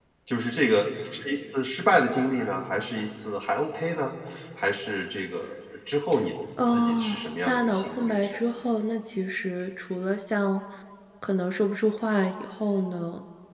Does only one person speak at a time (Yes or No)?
No